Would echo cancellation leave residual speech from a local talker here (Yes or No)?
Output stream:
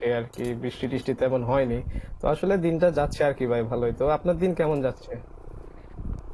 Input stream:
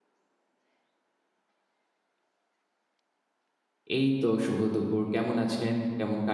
Yes